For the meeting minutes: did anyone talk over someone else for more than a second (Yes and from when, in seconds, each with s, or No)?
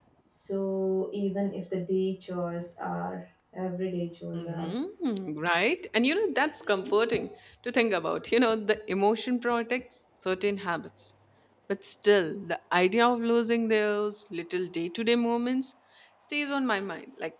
No